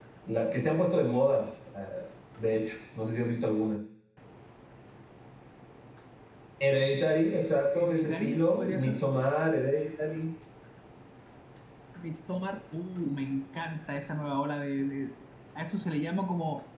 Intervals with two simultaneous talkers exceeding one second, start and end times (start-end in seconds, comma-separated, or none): 7.7-9.0